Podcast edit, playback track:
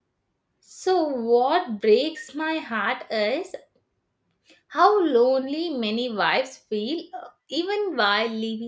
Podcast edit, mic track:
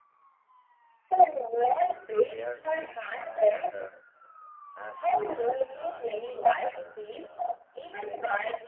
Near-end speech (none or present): present